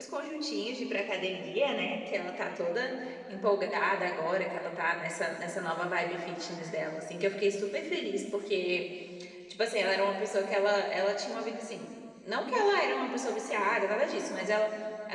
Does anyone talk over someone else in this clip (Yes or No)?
No